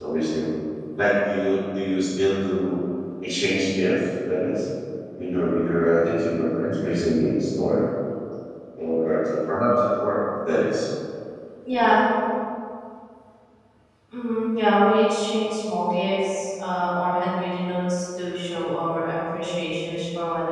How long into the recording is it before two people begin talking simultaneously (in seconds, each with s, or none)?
none